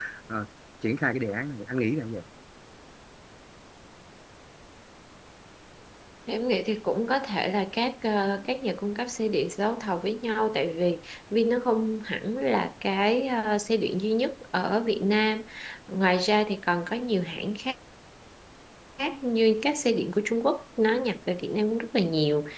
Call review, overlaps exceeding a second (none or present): none